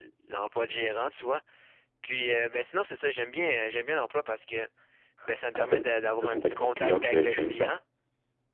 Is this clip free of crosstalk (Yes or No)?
No